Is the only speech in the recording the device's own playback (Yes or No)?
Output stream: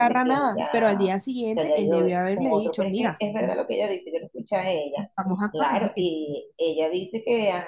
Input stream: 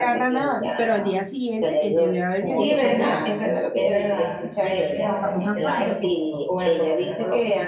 No